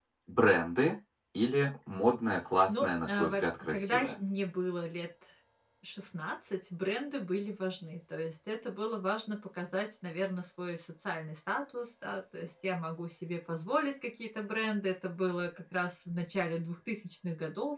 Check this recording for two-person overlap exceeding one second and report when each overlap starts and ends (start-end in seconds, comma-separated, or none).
2.7-4.1